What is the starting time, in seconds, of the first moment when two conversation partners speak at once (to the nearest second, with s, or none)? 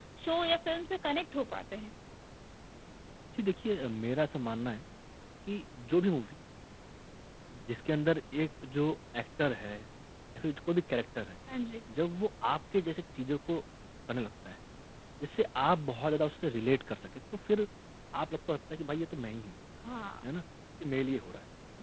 none